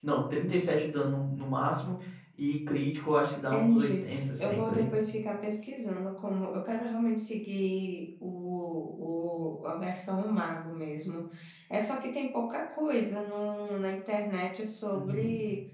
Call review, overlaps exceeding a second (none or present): present